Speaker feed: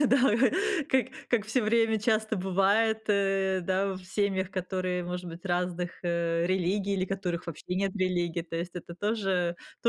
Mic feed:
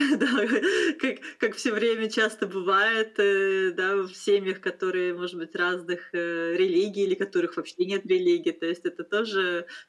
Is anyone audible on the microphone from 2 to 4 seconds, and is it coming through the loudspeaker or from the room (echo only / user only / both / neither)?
echo only